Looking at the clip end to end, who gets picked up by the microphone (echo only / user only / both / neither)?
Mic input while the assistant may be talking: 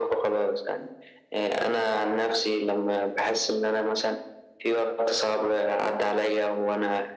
echo only